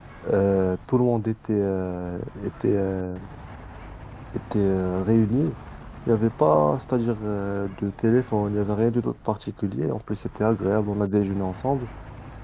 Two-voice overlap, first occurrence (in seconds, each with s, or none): none